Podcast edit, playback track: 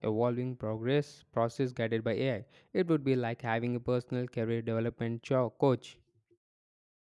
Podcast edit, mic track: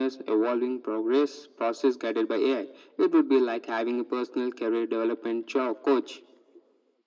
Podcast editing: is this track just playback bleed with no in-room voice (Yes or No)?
Yes